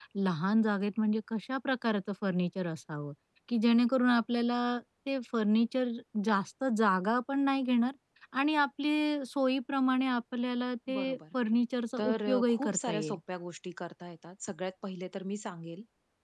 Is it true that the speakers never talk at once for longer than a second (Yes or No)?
No